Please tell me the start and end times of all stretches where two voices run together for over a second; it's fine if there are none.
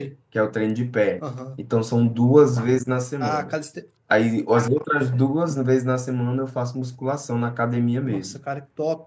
none

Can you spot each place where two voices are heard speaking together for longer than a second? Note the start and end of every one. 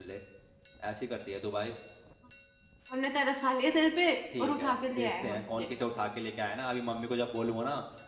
4.4-5.7

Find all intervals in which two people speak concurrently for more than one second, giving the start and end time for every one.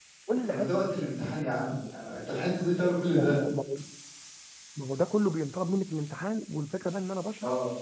none

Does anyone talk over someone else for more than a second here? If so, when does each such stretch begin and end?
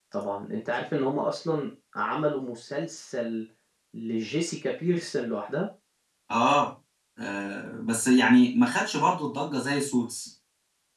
none

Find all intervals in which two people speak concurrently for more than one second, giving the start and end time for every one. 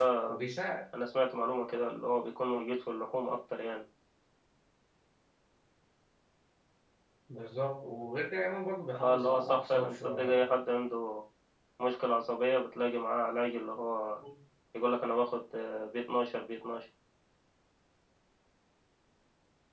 9.0-10.5

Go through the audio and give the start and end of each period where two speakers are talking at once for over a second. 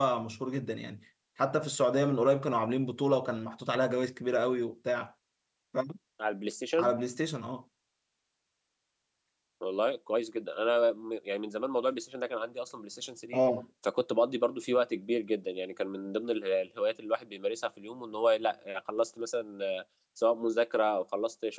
none

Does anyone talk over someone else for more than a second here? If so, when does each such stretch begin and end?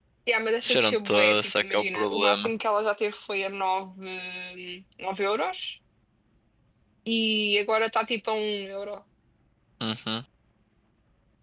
0.6-2.5

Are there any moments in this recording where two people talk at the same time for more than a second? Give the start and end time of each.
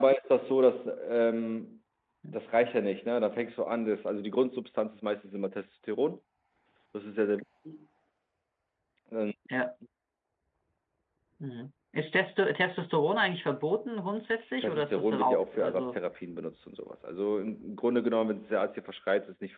14.6-16.0

